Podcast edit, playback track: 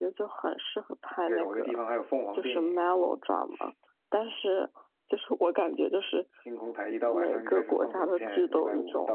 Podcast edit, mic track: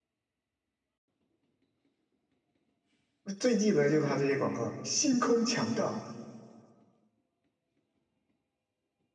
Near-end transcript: 我最记得就是他这些广告，星空强档，

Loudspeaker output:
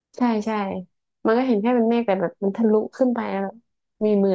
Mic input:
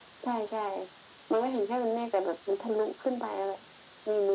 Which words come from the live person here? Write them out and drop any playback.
none

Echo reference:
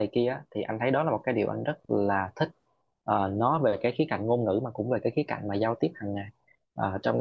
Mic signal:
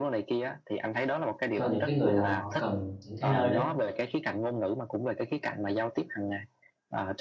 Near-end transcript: cho những cái người nào mà họ cần những cái nơi đó đó

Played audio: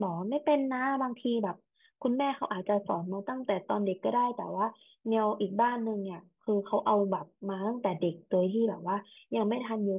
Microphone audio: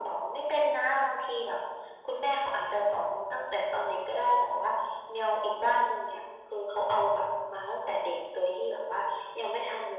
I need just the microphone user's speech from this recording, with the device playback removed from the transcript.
none

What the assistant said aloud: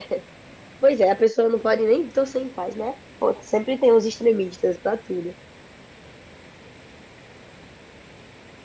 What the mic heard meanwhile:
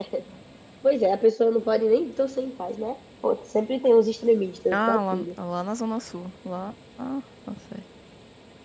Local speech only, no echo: Ah, lá, lá na Zona Sul. Lá. Ah, nossa.

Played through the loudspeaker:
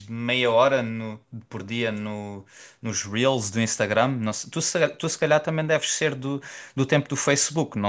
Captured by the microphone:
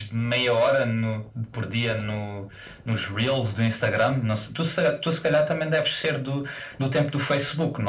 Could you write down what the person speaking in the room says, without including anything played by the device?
none

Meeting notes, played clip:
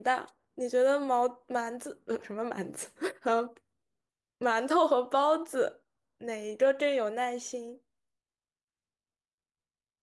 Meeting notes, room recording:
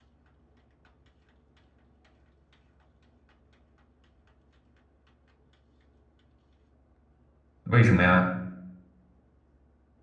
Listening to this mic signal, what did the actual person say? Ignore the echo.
为什么呀？

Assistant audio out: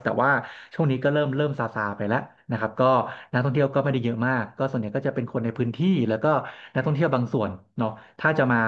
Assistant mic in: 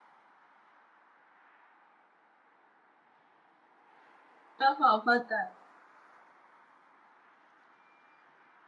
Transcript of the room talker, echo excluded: ก็พอเข้าใจ

